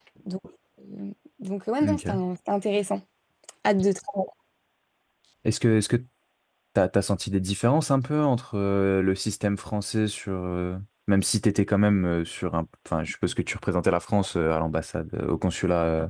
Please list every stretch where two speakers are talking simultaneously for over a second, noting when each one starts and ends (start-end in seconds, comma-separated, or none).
none